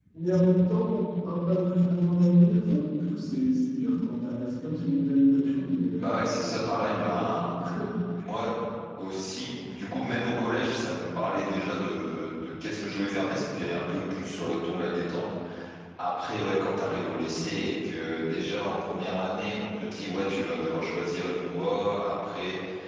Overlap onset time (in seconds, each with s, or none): 6.0 s